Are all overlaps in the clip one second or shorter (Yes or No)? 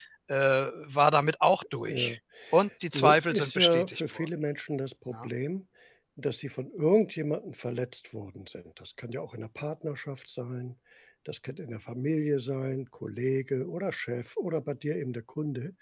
No